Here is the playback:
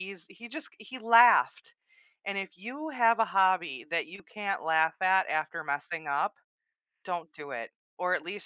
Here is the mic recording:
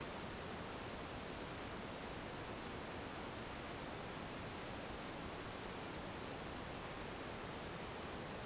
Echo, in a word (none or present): none